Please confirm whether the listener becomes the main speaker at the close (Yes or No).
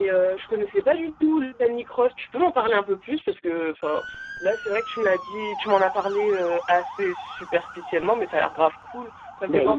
Yes